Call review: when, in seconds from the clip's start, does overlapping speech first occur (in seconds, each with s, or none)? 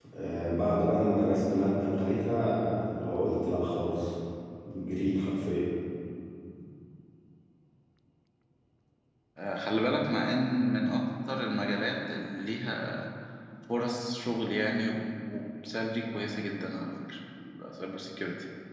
none